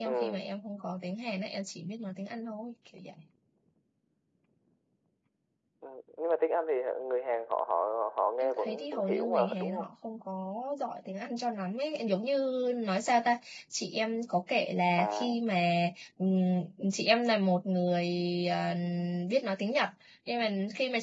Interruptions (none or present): present